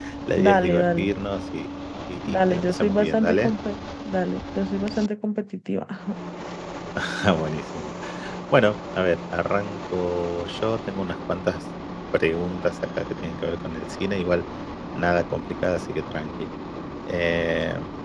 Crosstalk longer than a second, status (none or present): present